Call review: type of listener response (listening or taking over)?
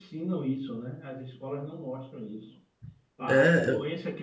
listening